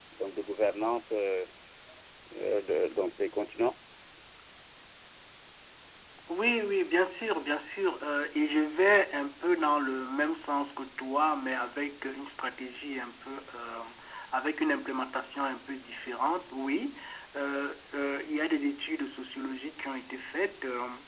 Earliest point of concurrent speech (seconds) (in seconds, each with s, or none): none